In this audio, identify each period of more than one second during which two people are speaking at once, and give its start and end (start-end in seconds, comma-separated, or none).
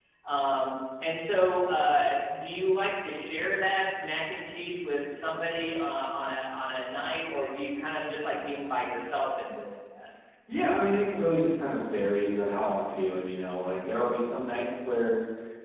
none